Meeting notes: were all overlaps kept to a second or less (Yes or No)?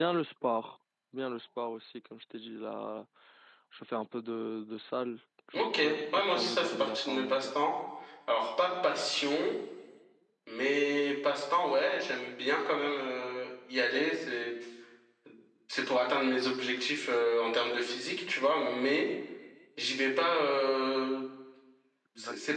No